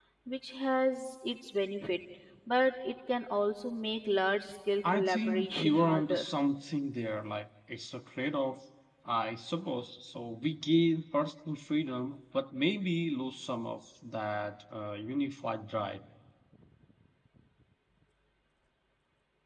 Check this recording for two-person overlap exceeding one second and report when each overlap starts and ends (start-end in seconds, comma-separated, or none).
4.9-6.2